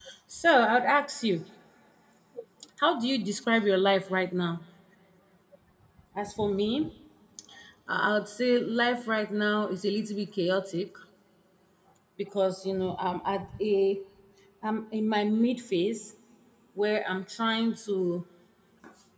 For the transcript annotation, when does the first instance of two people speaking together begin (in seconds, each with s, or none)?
none